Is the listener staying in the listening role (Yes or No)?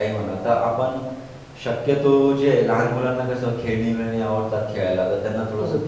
Yes